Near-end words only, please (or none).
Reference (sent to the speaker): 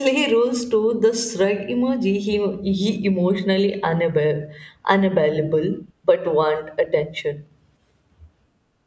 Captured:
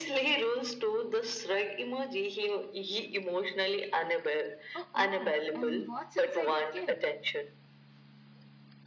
Oh, oh, and what's inside your kit?